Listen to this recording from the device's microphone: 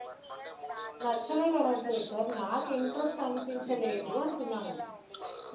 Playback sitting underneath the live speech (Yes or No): Yes